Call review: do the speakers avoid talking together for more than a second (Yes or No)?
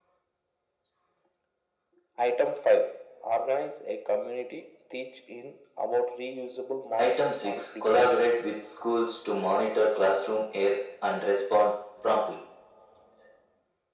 No